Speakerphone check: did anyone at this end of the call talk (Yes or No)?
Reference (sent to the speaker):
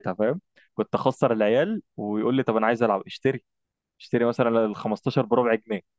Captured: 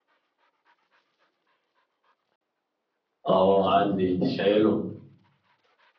Yes